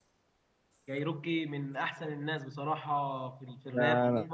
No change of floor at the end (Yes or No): No